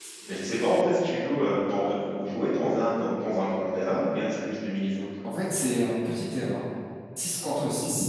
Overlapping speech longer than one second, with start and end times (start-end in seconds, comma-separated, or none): none